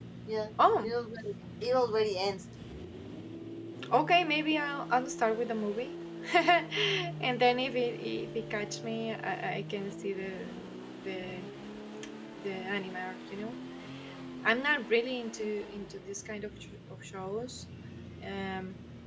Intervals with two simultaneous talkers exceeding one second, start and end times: none

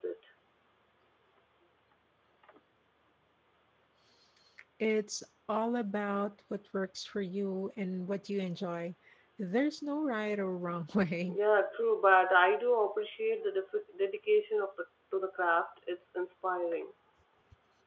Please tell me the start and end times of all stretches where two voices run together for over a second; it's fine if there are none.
none

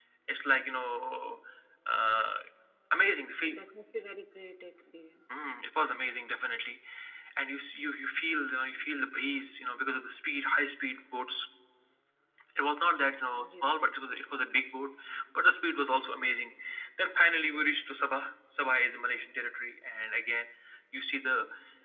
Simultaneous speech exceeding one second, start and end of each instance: none

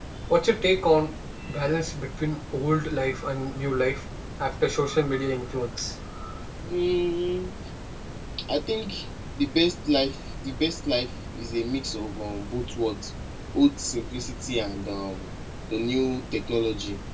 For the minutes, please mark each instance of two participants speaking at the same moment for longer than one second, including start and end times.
none

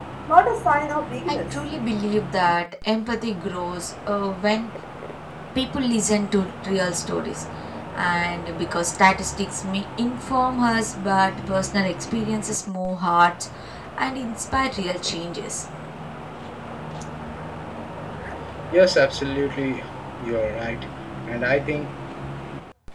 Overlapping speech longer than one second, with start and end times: none

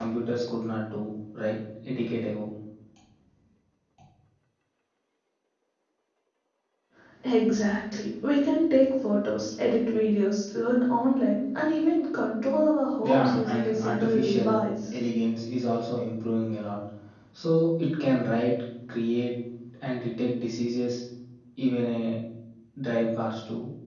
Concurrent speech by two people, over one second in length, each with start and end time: 13.0-14.6

